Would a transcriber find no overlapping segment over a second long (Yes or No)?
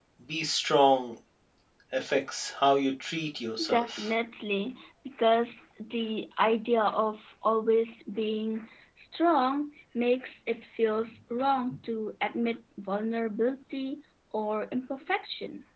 Yes